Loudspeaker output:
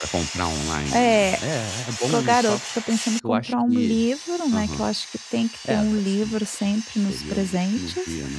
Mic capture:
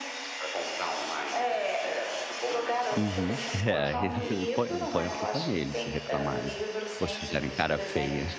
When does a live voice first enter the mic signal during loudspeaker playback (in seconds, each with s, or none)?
2.9 s